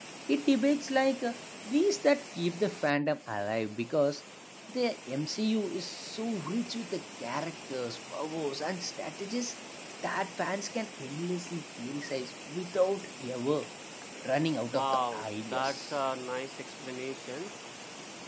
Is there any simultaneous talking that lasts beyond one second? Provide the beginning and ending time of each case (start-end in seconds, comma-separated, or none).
14.7-16.0